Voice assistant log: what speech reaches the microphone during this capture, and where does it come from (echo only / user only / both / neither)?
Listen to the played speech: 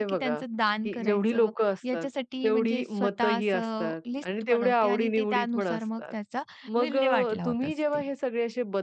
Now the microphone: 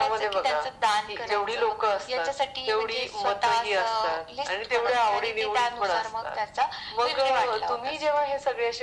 echo only